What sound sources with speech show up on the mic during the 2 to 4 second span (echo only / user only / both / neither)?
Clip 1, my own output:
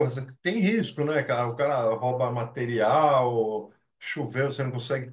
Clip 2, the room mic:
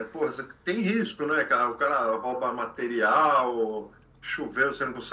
echo only